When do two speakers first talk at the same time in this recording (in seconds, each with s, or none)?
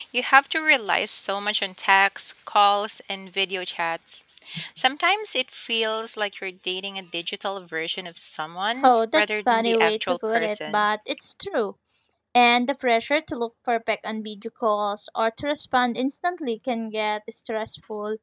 8.8 s